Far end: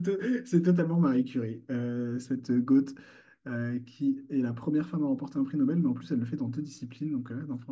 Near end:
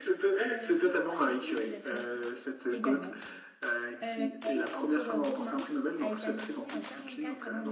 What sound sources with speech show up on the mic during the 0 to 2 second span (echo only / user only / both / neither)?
both